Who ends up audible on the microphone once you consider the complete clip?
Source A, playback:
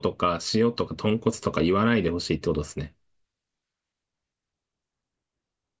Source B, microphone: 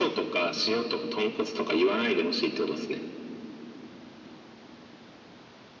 echo only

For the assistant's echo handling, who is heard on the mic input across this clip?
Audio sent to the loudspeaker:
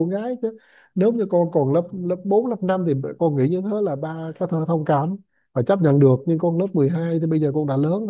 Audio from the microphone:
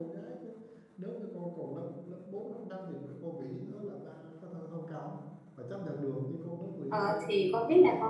both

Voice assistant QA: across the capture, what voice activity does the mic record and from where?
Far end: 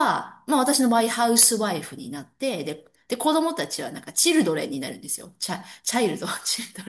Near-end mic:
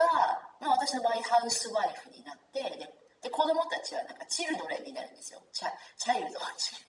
echo only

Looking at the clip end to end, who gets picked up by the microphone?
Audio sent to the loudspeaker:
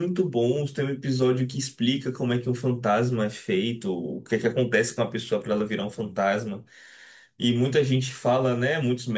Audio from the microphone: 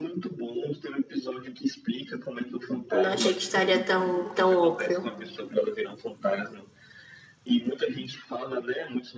both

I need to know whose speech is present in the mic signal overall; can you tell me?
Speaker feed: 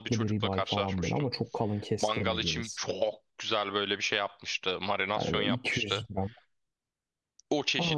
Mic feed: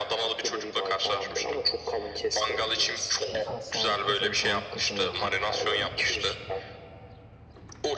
both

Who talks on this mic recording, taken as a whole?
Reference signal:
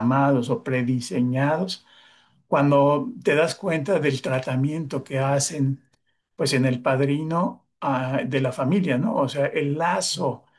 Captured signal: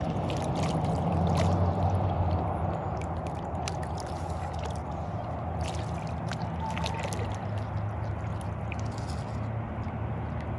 neither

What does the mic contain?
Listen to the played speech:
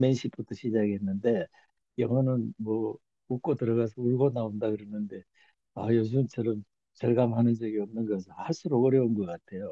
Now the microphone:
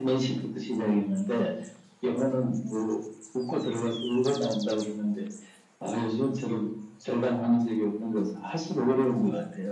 echo only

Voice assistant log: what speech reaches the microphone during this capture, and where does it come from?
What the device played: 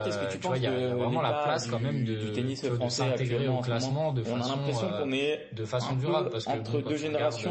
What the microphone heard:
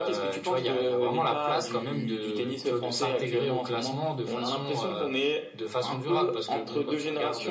echo only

